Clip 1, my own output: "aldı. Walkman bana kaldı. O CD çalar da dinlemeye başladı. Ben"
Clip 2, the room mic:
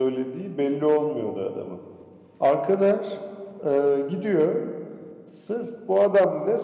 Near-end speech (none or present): present